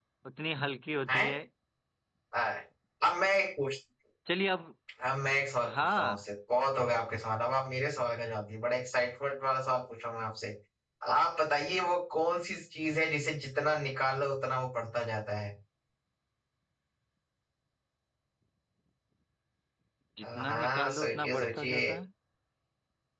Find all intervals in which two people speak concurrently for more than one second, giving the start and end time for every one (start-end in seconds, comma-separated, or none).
20.2-21.9